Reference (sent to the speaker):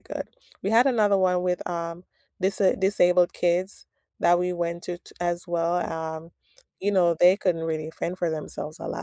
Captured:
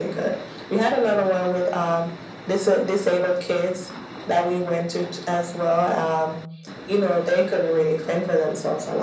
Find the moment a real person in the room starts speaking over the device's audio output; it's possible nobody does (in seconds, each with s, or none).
none